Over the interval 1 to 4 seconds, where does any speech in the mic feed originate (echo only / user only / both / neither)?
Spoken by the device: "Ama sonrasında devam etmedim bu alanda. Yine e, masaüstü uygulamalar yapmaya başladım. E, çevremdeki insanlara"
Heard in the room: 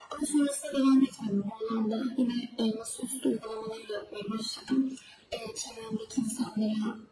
echo only